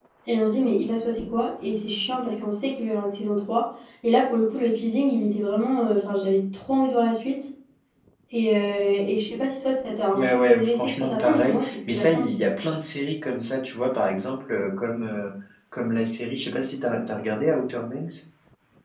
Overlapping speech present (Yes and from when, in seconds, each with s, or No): Yes, from 10.1 s